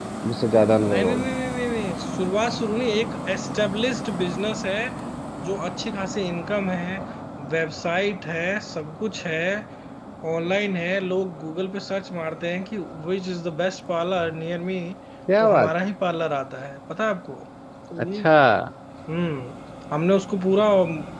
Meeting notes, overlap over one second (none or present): none